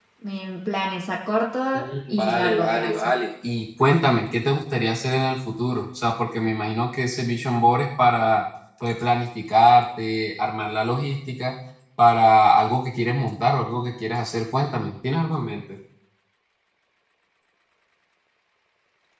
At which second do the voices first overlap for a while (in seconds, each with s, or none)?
1.7 s